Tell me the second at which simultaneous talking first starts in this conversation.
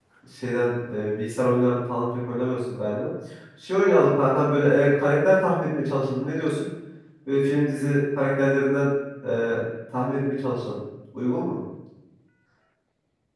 none

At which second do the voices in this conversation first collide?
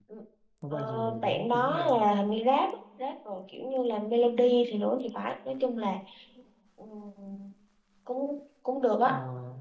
0.7 s

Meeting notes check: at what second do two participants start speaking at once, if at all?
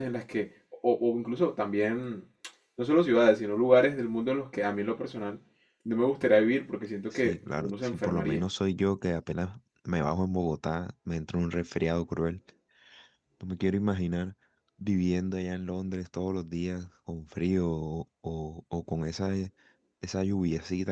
7.1 s

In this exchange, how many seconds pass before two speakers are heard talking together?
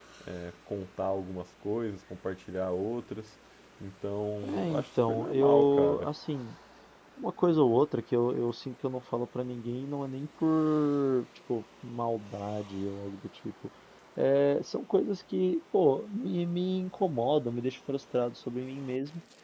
4.4 s

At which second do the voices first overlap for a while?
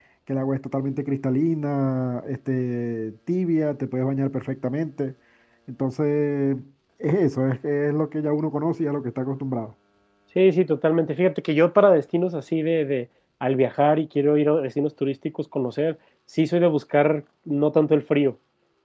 none

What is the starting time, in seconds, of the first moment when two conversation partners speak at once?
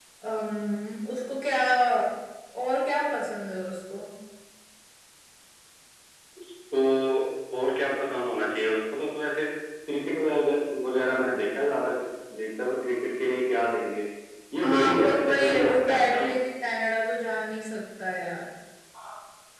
14.6 s

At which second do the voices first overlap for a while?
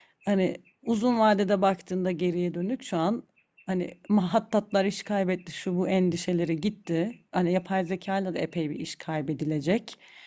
none

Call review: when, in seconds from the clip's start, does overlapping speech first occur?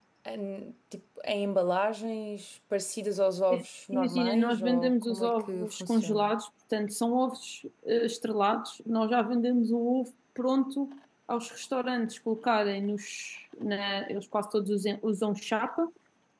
3.9 s

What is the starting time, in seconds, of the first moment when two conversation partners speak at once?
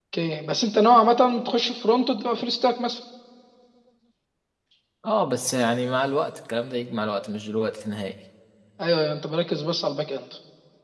none

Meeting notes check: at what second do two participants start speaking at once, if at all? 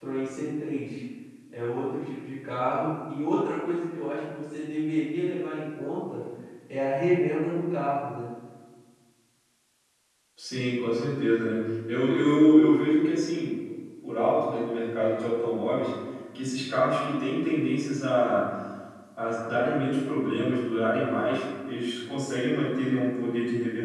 none

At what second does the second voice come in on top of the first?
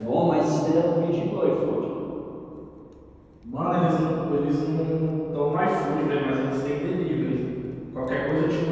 none

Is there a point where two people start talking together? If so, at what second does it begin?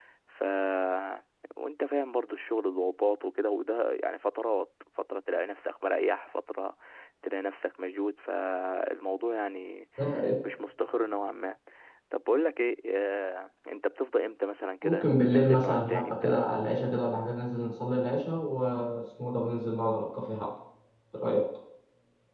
14.8 s

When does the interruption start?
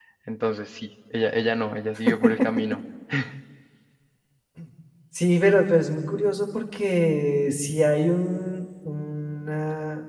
none

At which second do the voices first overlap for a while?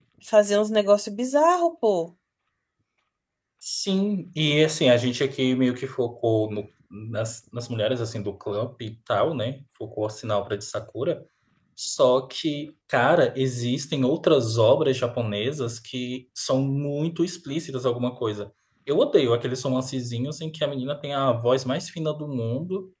none

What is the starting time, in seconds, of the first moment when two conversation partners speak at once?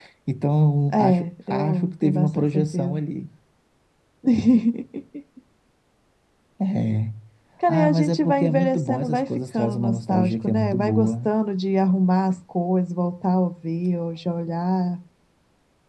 0.9 s

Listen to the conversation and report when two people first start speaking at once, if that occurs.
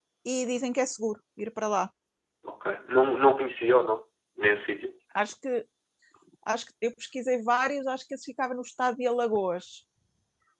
none

